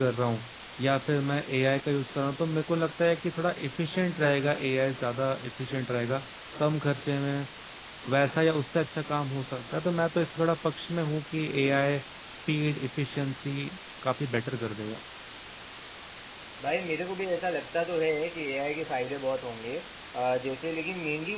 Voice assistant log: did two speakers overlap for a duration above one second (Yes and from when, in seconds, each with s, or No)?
No